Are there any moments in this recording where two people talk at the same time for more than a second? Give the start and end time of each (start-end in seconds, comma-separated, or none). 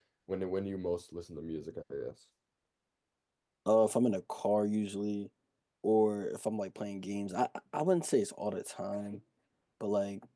none